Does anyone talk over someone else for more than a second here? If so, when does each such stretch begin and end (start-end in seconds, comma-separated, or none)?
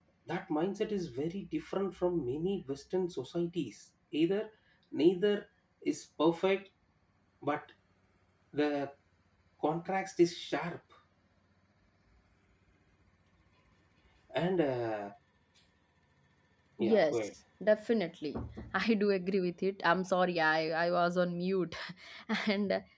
none